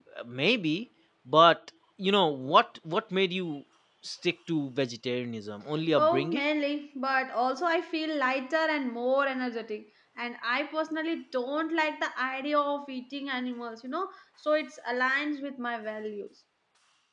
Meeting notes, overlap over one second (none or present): none